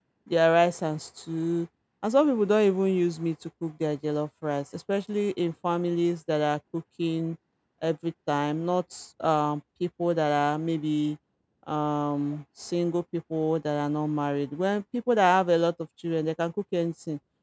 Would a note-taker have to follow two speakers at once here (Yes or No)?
No